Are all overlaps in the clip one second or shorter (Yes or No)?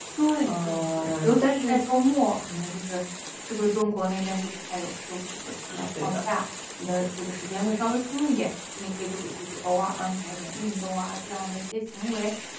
No